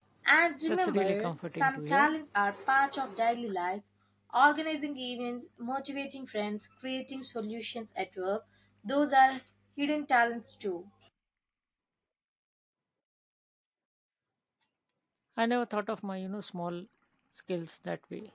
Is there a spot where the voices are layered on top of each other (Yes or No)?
Yes